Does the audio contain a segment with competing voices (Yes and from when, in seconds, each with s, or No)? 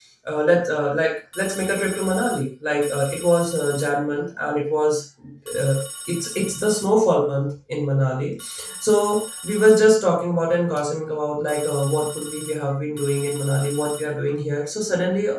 No